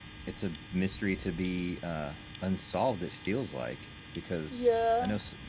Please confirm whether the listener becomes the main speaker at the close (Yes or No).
Yes